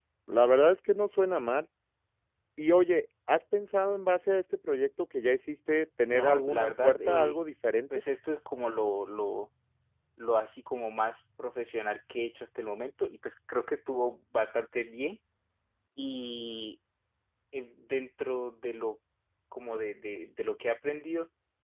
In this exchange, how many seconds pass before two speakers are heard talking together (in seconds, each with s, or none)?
6.0 s